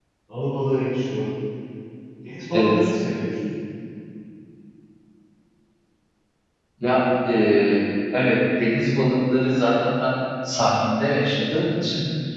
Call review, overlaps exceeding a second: none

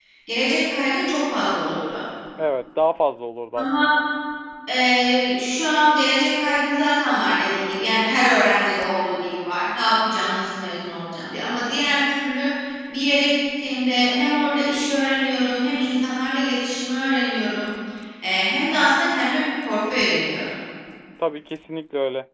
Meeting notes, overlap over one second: none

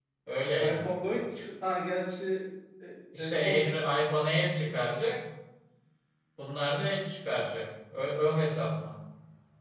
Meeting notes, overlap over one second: none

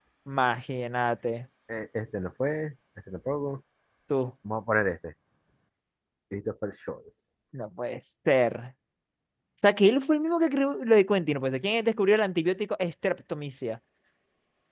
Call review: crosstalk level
none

